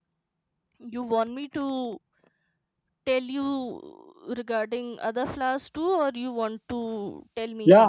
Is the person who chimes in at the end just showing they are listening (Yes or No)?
No